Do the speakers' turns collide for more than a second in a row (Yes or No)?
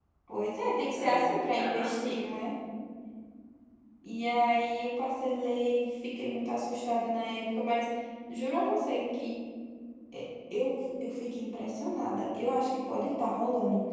Yes